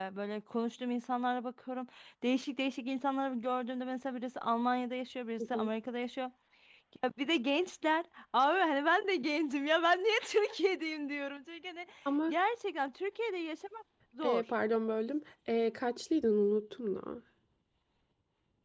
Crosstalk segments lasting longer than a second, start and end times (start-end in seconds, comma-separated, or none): none